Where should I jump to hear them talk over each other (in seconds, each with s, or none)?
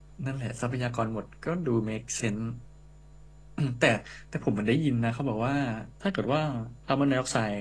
none